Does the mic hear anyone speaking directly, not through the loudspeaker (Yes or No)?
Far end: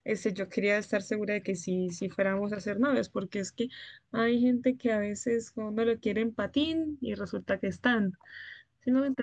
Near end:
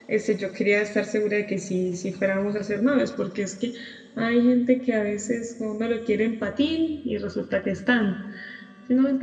No